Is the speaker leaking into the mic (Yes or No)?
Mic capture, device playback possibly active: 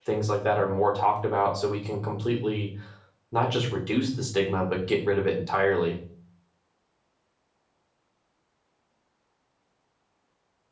No